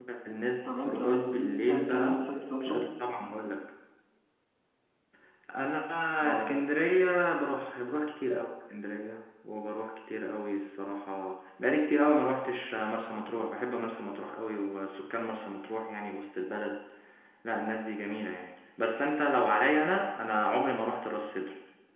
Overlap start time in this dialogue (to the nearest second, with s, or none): 1 s